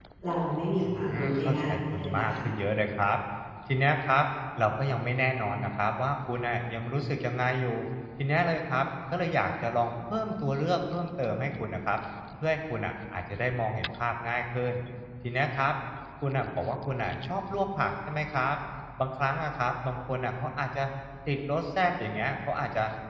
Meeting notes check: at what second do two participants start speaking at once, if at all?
1 s

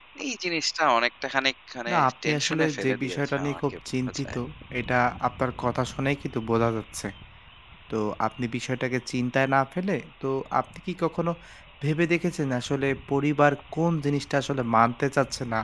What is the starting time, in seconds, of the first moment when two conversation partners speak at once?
2 s

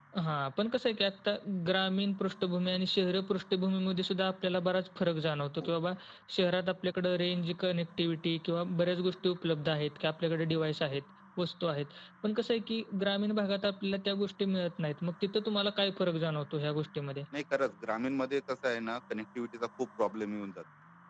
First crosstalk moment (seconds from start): none

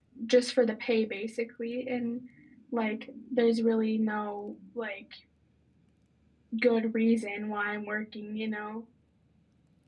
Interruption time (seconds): none

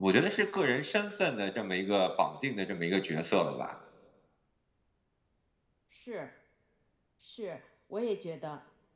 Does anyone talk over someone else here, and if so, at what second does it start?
none

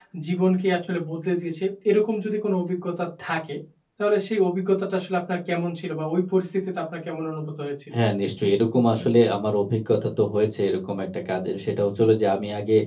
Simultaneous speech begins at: none

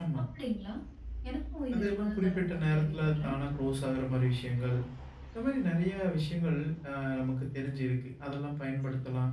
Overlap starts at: 2 s

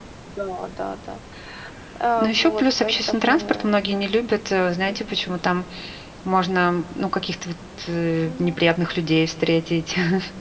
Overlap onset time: 2 s

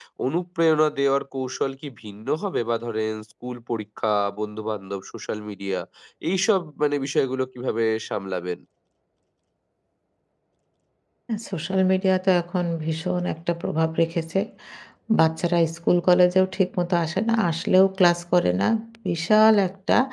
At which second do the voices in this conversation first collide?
none

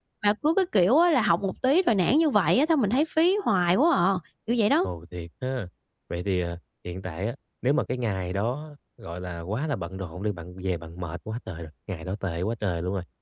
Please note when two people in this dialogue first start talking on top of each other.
none

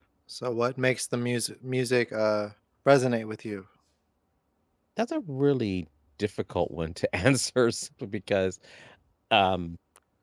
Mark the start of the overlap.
none

